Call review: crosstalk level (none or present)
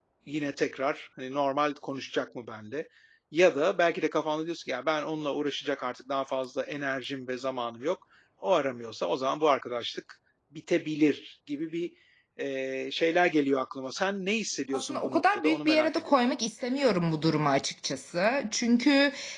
present